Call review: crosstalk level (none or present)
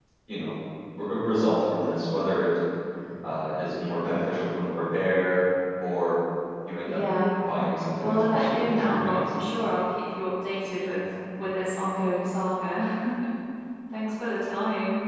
present